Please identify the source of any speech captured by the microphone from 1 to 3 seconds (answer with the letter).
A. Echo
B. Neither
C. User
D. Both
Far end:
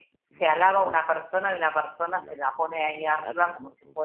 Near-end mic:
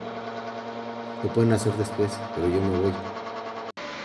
C